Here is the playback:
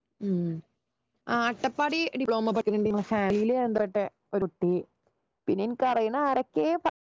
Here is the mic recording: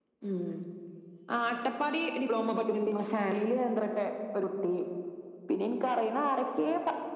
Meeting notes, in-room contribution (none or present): none